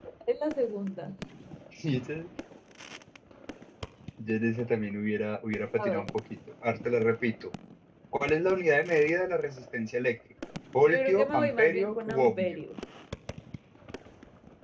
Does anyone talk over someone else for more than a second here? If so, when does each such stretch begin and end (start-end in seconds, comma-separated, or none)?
10.9-12.6